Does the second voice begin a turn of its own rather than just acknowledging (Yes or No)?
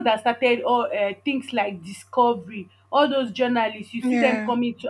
No